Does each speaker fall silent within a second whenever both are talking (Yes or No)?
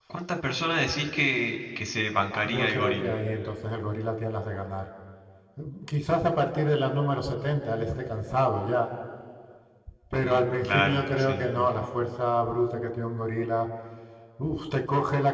No